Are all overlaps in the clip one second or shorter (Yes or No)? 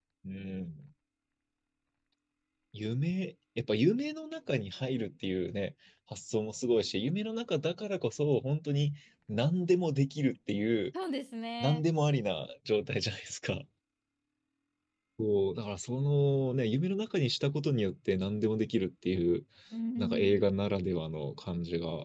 Yes